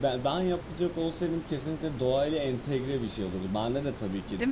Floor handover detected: No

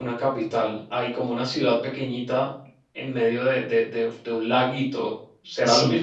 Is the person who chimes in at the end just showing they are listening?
No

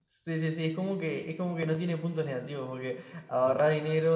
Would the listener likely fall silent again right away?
Yes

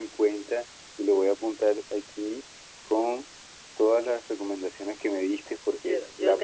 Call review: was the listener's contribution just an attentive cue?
No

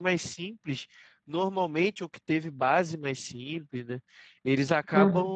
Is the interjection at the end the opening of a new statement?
No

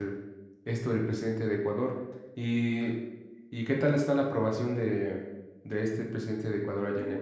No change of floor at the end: No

